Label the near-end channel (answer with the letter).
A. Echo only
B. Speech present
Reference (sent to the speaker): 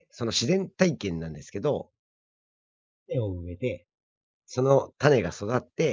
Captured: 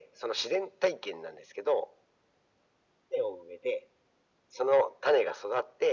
A